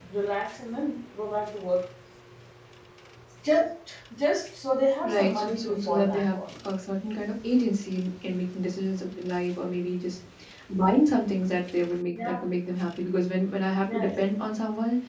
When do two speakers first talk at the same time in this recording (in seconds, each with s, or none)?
5.0 s